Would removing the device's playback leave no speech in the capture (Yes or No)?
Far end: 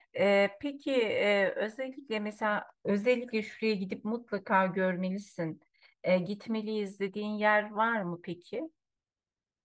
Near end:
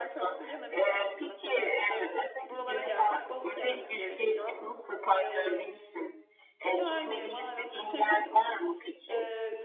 No